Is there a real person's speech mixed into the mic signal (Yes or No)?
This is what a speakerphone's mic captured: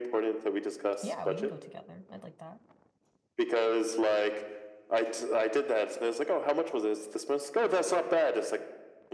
Yes